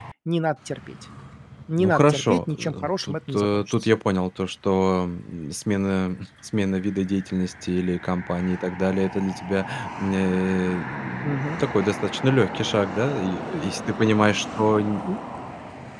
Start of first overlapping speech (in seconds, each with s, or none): 1.8 s